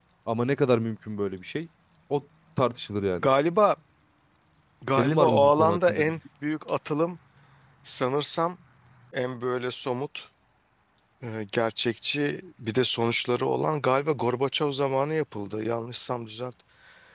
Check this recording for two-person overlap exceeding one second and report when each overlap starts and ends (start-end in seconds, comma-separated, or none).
4.9-6.2